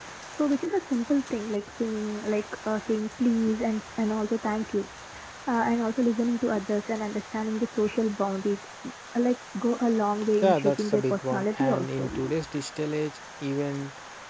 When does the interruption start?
10.4 s

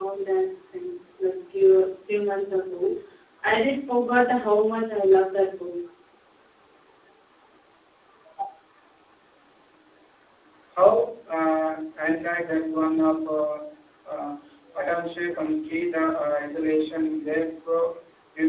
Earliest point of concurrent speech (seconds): none

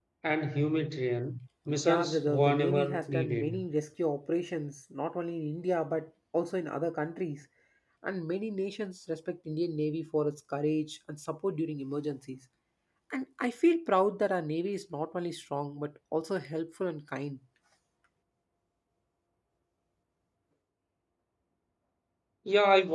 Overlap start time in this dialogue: 1.7 s

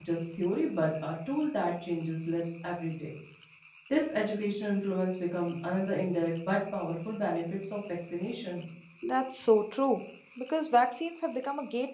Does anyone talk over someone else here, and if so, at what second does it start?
none

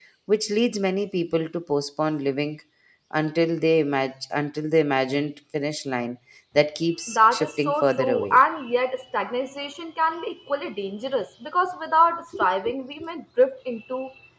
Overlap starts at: 7.1 s

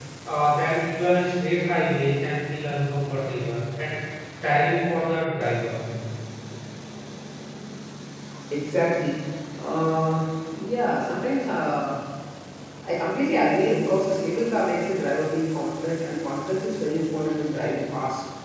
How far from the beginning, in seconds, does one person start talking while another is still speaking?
none

